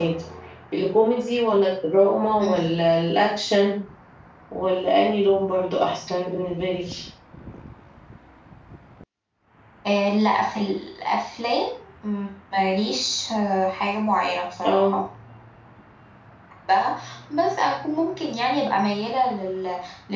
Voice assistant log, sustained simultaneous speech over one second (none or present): none